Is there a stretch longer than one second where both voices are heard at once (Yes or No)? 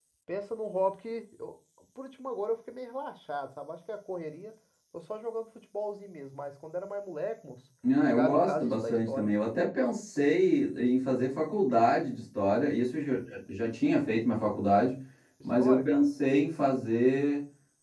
Yes